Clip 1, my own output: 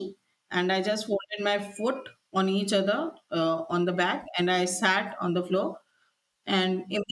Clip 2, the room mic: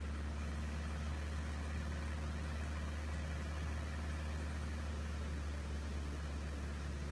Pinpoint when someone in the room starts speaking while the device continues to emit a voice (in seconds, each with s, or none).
none